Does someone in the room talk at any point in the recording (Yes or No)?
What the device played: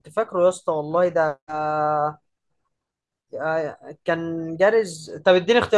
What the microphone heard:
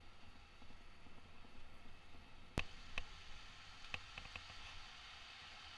No